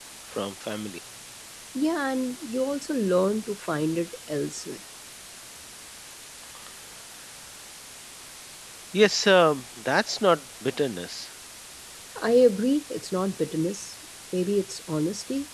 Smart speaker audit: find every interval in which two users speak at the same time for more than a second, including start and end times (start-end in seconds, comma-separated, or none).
none